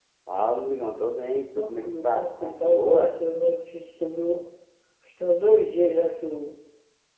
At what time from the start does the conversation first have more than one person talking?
2 s

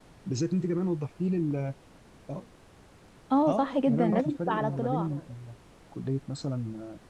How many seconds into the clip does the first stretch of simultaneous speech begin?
3 s

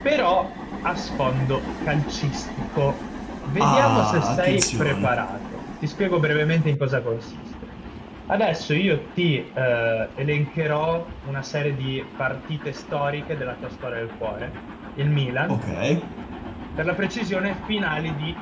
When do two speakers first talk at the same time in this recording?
4 s

